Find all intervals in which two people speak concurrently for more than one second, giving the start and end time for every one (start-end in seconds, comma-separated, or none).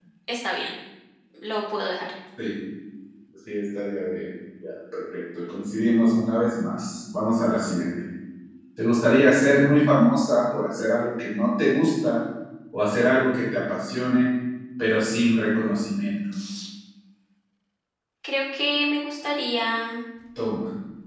none